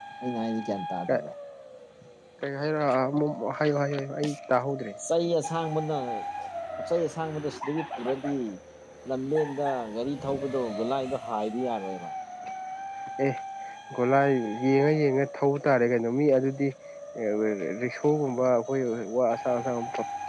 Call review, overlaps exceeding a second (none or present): none